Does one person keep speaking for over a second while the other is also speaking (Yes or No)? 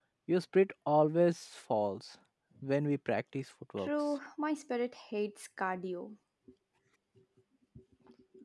No